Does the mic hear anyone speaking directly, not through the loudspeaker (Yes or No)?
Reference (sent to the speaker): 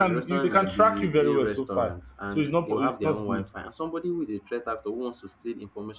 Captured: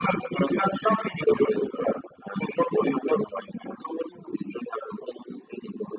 No